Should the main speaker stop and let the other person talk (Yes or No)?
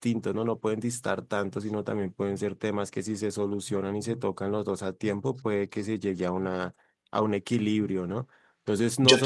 No